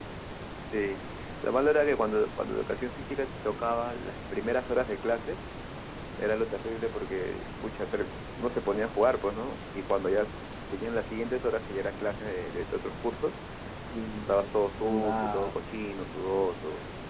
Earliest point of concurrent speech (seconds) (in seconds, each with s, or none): 14.3 s